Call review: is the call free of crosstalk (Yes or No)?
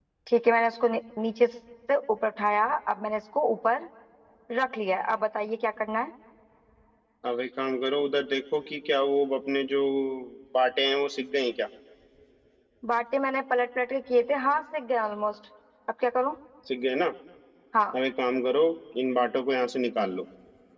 Yes